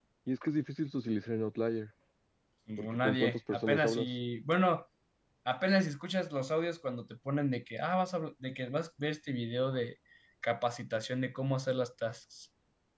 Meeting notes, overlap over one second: present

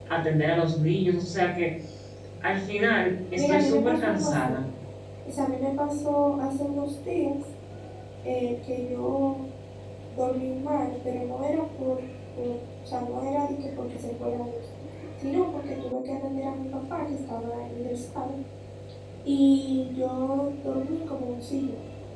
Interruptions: present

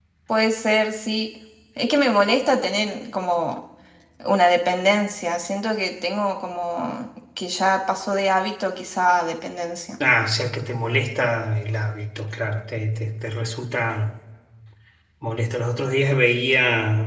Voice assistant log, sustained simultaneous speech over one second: none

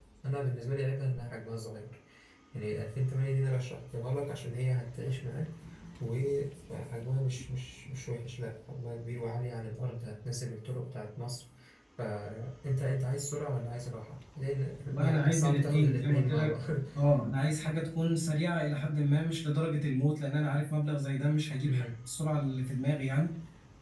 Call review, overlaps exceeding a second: present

